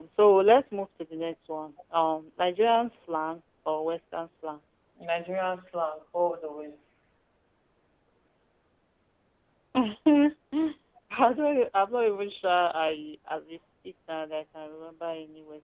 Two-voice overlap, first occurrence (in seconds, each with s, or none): none